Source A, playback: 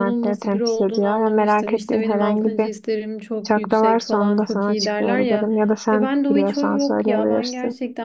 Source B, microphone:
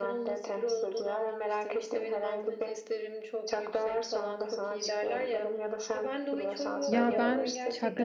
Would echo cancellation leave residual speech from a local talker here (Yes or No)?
Yes